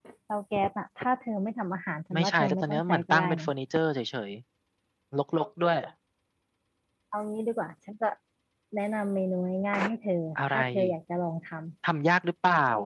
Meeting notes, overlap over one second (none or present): present